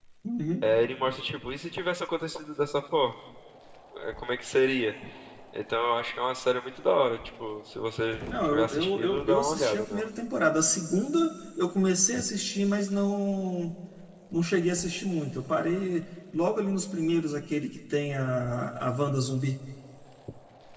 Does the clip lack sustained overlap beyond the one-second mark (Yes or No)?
No